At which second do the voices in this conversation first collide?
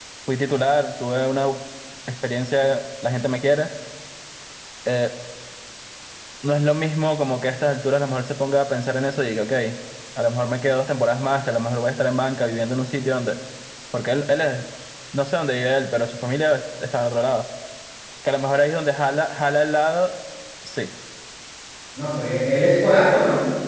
none

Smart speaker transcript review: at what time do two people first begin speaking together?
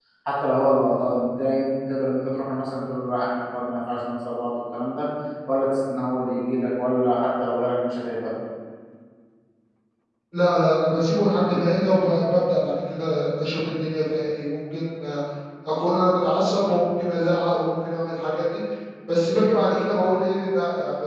none

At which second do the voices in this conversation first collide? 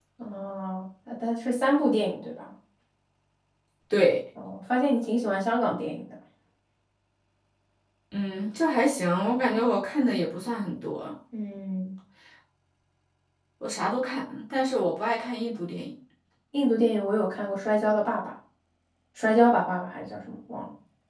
none

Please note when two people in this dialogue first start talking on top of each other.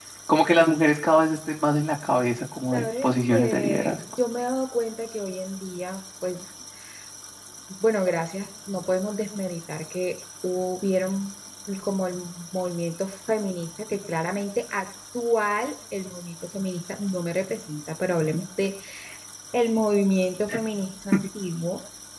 3 s

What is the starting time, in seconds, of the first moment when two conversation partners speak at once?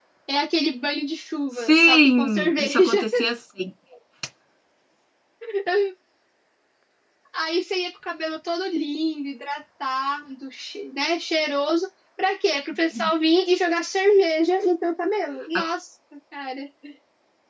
2 s

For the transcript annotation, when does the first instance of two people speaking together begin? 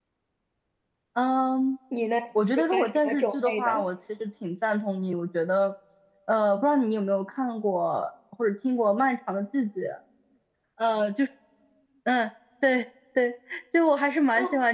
3 s

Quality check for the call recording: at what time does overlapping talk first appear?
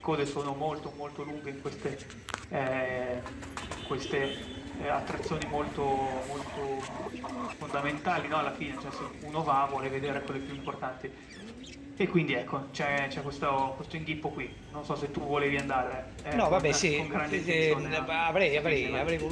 16 s

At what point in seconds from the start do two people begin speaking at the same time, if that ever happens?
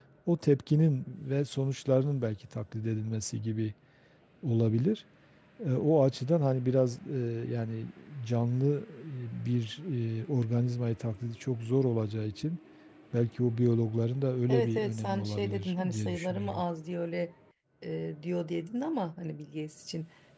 14 s

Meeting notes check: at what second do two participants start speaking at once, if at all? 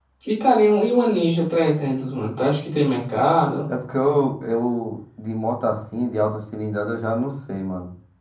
none

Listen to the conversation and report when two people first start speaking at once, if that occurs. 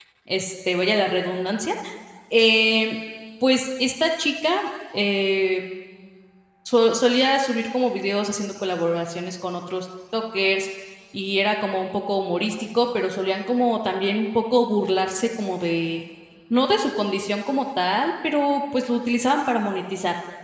none

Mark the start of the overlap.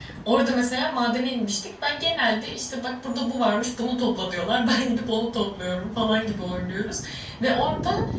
none

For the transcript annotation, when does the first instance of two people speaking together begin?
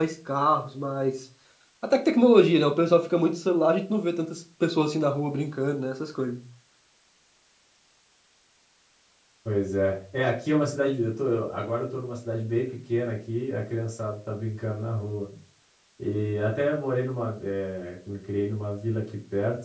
none

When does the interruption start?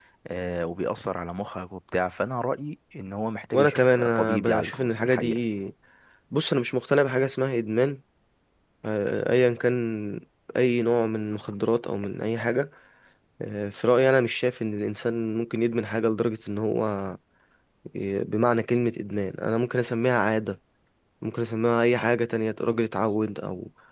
4 s

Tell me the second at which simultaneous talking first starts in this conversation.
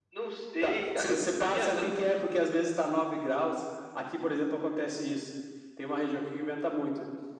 1 s

